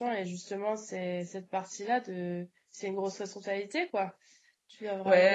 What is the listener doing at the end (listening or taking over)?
taking over